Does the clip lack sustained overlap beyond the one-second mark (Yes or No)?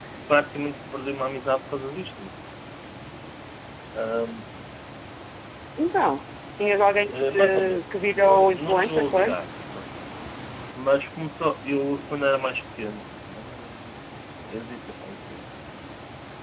No